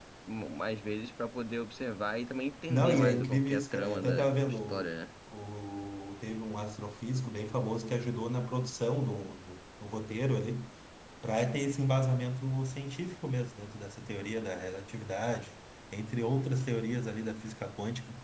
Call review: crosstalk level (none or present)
present